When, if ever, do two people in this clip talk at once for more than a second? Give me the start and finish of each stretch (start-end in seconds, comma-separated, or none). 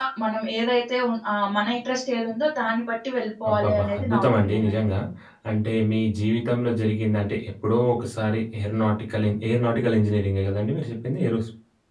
3.5-4.7